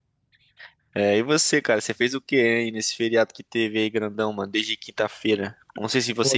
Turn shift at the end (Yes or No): No